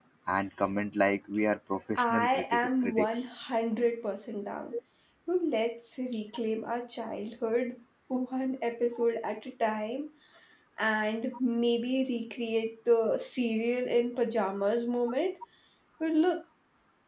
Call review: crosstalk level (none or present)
present